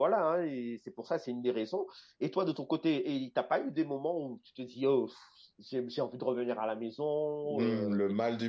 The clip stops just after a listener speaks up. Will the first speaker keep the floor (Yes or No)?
No